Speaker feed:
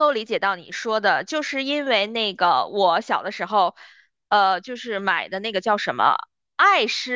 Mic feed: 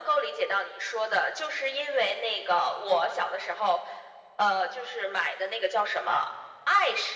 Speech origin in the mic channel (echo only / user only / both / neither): echo only